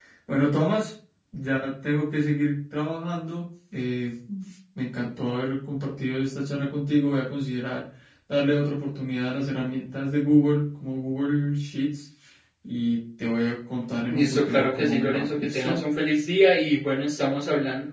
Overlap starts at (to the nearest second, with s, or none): 14 s